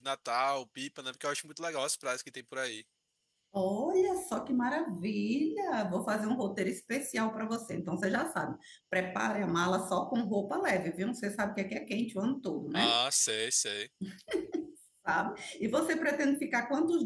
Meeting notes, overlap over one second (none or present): none